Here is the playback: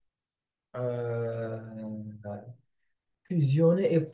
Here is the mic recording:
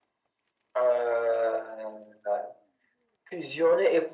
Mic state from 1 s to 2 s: echo only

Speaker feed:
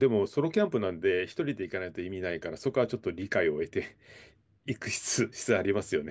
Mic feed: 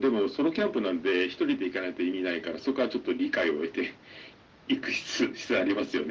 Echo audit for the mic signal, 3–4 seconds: echo only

